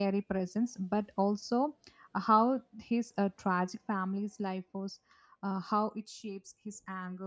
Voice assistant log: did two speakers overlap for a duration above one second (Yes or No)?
No